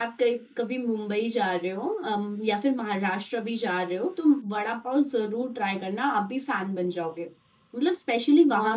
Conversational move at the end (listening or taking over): taking over